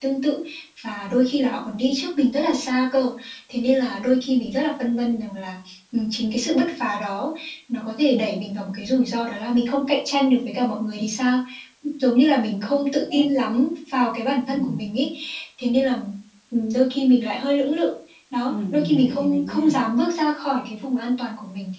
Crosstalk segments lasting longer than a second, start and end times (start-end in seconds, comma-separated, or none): 18.5-19.7